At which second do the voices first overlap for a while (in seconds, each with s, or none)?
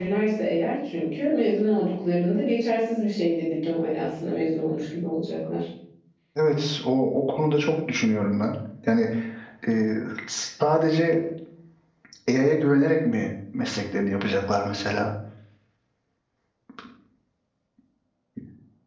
none